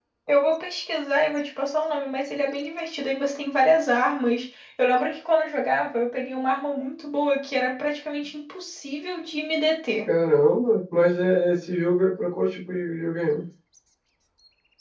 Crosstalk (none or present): none